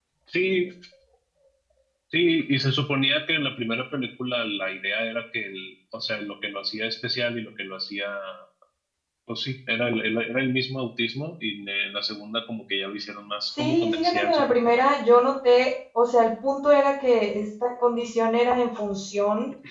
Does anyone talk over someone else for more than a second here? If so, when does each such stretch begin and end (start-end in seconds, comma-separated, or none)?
13.6-14.8